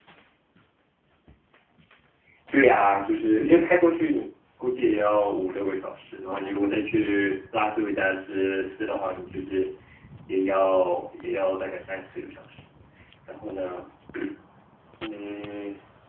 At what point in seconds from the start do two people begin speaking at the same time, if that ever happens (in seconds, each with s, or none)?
none